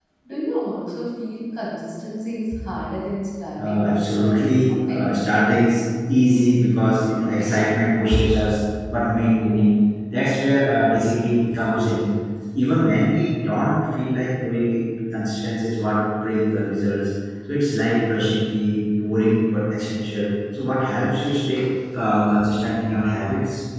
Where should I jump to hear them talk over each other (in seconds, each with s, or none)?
3.6 s